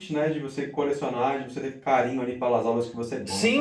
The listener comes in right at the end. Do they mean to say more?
Yes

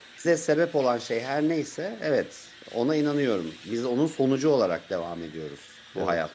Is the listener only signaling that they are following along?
Yes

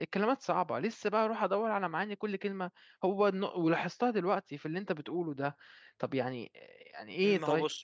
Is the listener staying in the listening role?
No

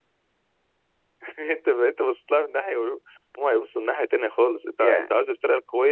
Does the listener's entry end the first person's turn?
No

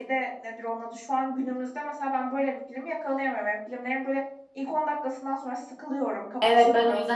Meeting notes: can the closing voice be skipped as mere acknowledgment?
No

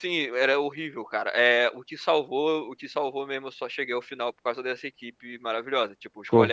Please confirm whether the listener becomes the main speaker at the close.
No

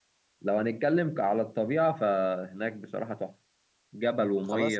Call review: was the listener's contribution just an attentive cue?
Yes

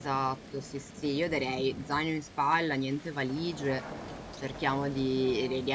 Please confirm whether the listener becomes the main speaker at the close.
No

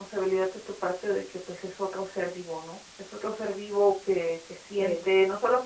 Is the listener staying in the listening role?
Yes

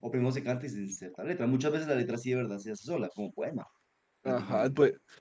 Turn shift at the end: Yes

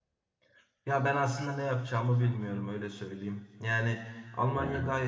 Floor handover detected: No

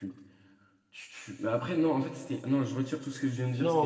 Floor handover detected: Yes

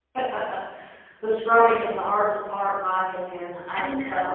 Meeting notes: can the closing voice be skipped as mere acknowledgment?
Yes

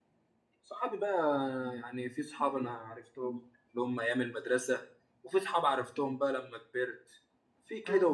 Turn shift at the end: No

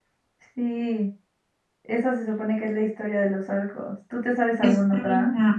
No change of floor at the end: No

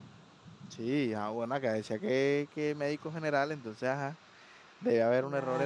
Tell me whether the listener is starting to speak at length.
No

